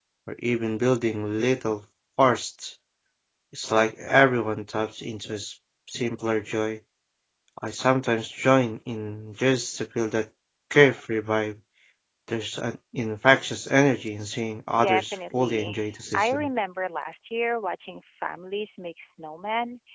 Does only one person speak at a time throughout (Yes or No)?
No